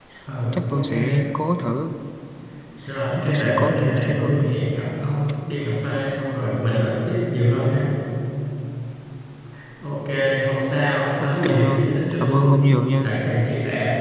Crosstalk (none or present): present